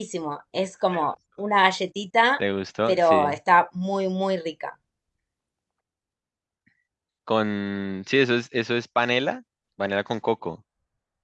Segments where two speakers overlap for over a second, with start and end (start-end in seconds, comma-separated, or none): none